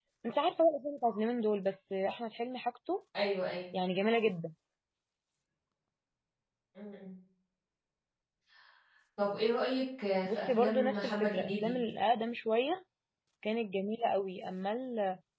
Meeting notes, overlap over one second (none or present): present